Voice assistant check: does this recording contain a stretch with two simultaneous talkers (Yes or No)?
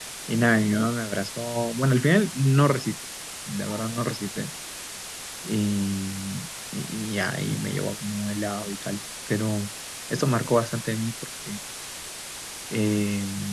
No